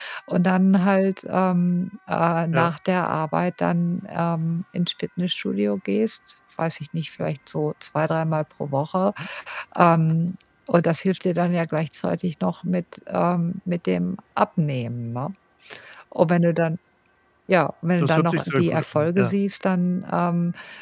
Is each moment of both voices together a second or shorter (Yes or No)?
No